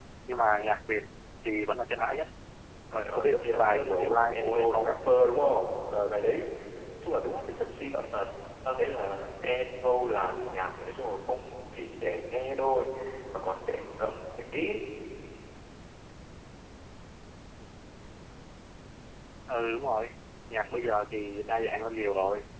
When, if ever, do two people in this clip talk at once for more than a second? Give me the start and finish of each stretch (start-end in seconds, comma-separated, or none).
3.0-5.0